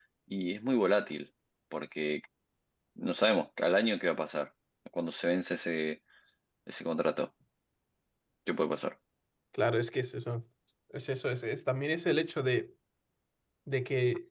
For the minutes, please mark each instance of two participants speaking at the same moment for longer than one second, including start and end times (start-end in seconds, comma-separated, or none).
none